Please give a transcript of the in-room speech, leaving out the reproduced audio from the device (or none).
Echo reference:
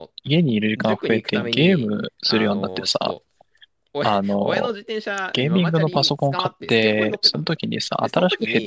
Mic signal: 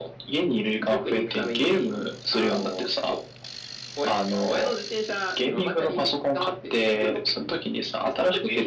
none